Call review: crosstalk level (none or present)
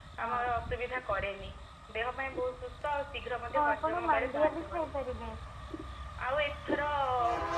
present